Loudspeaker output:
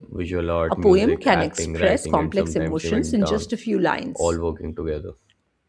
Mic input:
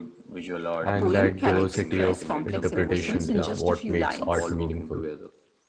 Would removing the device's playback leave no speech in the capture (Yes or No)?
No